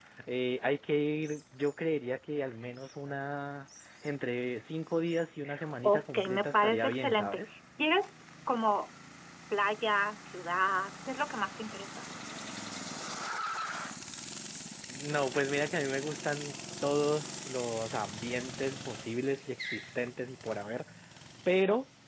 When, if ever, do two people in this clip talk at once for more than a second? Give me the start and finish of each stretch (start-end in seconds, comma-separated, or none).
5.8-7.4